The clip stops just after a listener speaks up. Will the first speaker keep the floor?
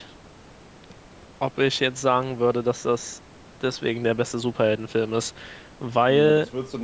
No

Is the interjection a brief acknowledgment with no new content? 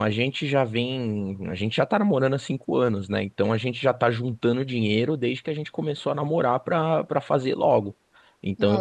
Yes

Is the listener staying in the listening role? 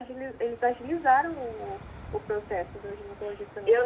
No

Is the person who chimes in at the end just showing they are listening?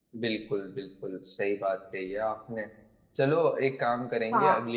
Yes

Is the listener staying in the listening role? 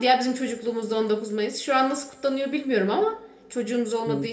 Yes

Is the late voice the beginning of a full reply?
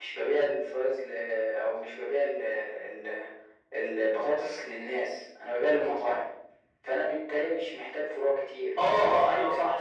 Yes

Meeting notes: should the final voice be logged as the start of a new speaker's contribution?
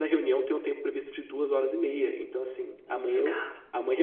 No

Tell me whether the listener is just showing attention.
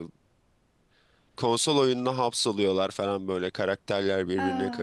Yes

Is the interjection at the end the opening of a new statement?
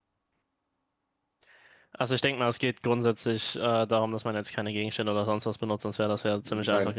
No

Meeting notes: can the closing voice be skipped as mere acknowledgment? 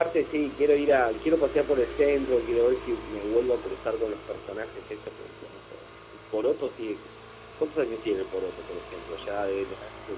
Yes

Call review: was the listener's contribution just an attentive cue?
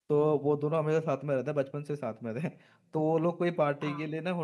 Yes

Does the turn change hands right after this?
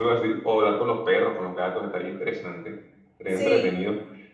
No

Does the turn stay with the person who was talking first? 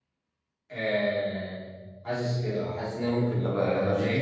No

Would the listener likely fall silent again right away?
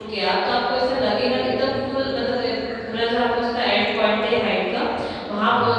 Yes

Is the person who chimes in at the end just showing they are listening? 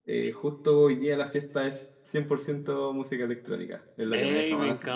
No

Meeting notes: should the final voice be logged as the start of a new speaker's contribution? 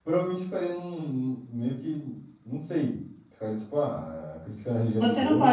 Yes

